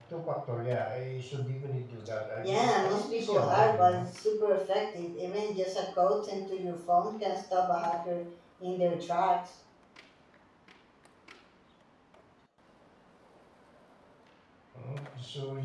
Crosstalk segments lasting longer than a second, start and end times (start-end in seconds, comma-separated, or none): 2.4-4.0